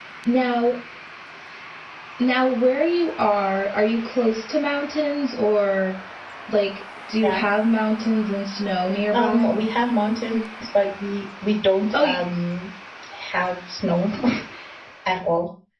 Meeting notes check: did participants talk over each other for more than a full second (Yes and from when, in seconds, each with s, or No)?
No